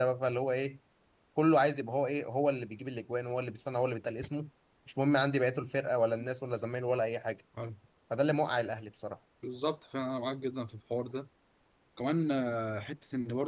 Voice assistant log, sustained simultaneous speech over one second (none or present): none